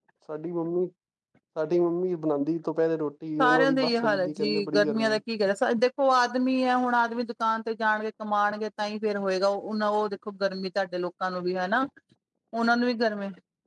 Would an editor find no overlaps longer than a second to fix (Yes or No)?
No